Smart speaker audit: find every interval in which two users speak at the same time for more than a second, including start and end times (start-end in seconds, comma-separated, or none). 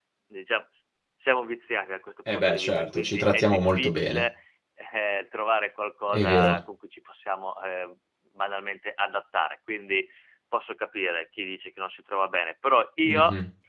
2.3-4.2